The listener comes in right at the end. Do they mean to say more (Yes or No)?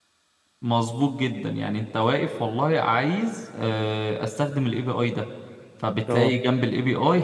No